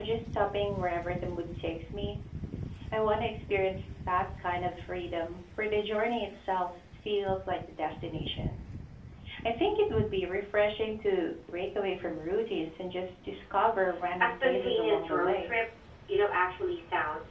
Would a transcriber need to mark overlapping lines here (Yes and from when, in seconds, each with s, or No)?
Yes, from 14.2 s